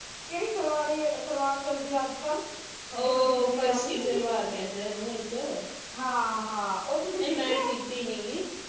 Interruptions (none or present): present